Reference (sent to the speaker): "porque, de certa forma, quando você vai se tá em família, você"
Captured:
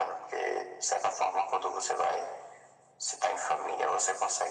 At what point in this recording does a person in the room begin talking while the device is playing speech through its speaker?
none

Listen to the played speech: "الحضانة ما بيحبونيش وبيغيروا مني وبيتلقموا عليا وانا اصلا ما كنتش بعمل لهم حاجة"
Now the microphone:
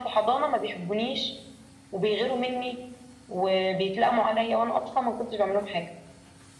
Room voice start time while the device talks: none

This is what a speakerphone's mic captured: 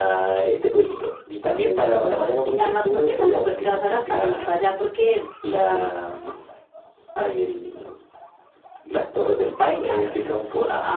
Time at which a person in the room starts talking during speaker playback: none

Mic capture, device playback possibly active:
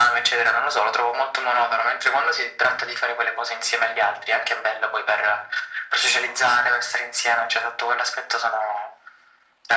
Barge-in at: none

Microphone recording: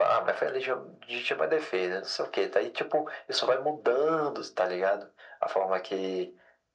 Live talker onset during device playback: none

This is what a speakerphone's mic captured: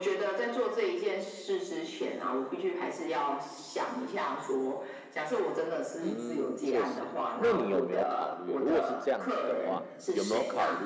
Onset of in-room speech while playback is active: 6 s

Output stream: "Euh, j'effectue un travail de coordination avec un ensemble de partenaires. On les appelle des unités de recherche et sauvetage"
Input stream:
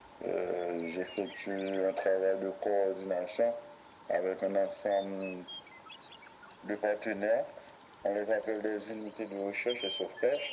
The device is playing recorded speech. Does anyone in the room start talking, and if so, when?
none

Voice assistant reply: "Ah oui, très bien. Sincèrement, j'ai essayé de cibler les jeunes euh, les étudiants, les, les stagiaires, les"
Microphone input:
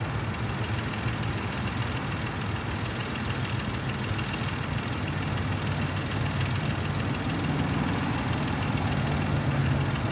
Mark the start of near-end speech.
none

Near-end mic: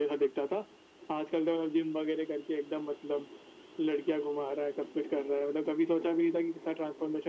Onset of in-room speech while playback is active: none

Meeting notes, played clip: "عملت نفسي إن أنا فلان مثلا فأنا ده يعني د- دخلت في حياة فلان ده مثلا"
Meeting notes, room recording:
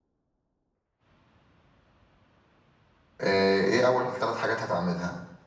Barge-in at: 3 s

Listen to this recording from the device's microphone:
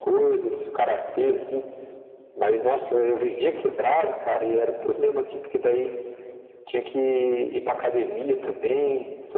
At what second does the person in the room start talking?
none

